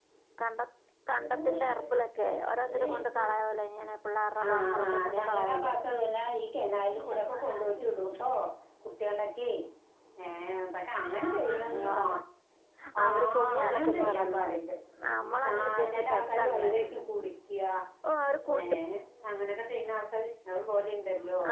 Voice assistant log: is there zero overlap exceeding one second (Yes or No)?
No